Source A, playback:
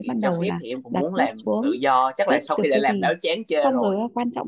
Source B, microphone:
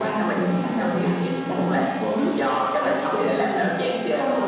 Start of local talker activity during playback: none

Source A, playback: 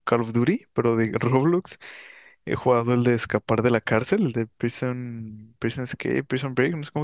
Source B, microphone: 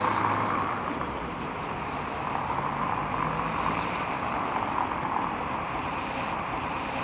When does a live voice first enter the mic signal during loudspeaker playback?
none

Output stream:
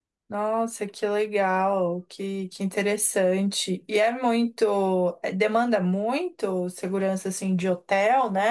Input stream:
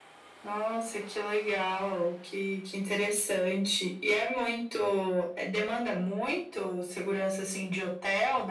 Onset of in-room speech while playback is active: none

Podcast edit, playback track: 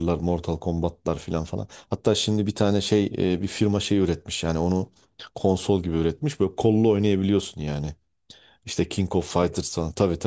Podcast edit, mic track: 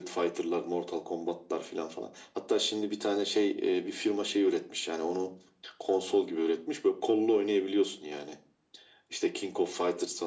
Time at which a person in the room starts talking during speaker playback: none

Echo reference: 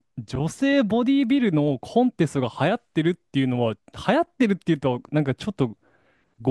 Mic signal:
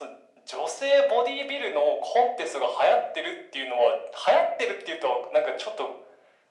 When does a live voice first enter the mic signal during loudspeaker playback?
none

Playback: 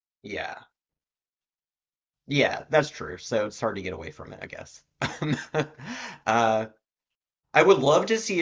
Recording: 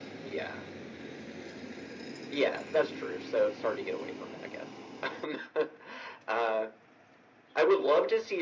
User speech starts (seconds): none

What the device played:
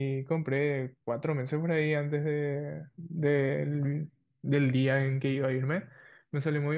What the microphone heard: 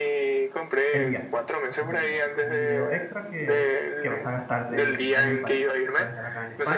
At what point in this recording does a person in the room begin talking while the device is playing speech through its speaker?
0.9 s

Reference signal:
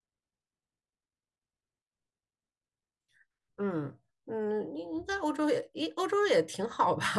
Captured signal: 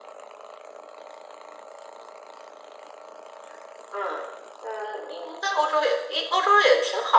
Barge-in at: none

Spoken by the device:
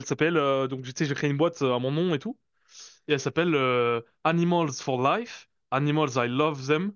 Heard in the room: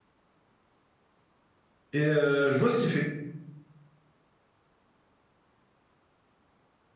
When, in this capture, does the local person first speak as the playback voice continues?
1.9 s

